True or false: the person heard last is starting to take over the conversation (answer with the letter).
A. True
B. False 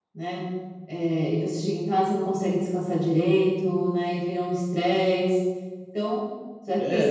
A